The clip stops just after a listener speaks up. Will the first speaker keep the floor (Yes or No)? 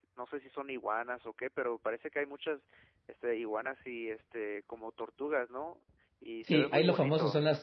No